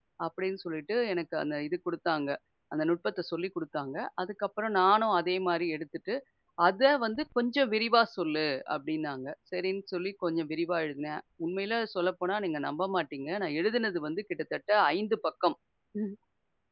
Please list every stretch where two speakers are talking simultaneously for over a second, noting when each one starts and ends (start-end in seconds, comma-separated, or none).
none